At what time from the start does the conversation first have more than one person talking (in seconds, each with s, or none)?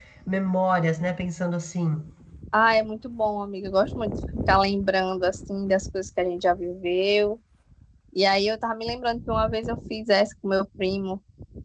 none